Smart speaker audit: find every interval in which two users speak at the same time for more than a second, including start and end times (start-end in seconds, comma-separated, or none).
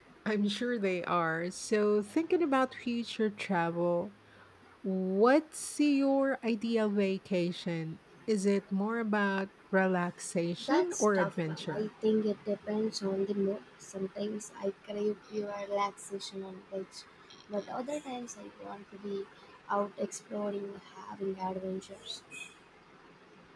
10.6-11.9